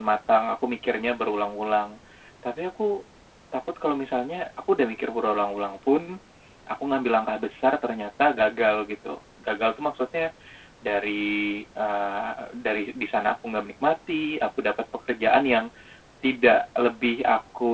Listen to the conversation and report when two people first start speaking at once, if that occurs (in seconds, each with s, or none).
none